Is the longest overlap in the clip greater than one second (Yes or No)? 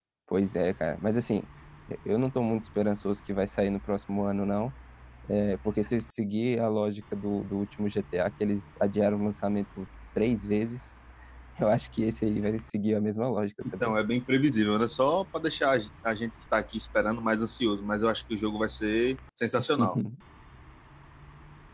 No